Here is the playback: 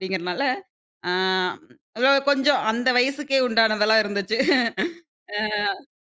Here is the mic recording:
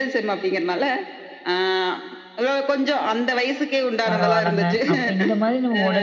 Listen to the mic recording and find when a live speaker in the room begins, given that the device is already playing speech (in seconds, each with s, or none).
4.1 s